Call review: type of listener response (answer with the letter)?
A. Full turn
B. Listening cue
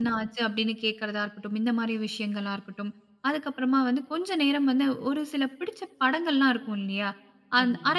B